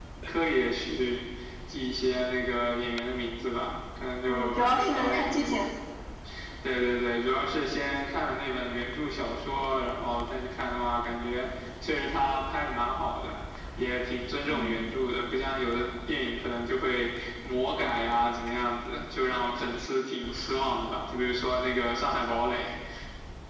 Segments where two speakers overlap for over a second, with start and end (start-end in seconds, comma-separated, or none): 4.3-5.6